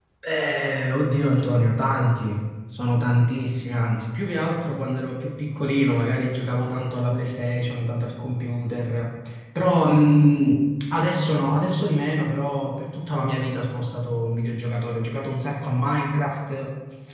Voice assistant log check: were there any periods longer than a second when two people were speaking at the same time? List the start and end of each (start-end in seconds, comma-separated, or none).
none